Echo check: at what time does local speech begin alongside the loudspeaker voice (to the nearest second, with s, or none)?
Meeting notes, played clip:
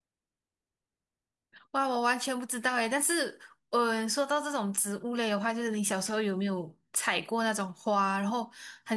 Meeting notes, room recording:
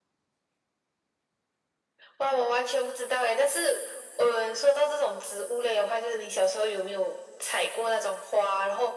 none